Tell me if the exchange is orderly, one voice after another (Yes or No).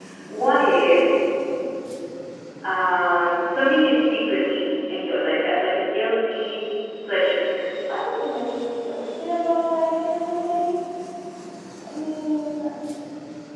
Yes